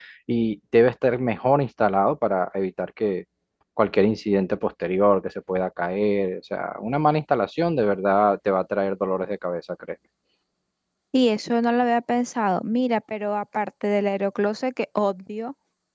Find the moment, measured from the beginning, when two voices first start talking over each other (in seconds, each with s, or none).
none